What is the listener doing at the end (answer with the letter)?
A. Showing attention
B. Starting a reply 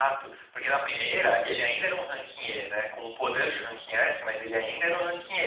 A